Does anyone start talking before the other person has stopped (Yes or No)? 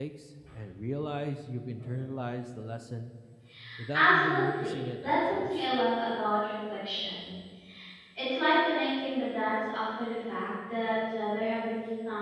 Yes